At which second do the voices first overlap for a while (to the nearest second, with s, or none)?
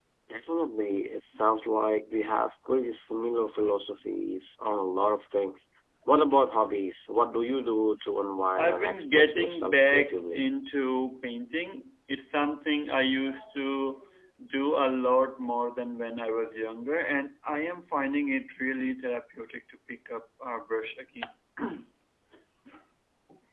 9 s